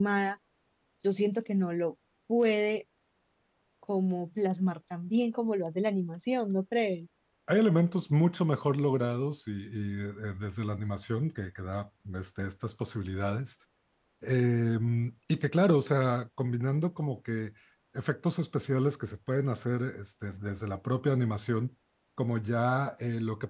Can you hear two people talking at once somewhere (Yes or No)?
No